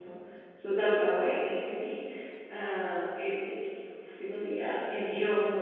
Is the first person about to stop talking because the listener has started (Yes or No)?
No